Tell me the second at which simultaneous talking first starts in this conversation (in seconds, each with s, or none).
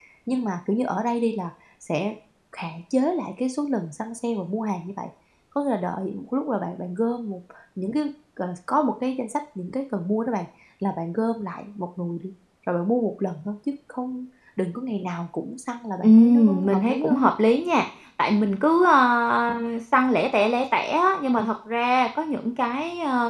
16.0 s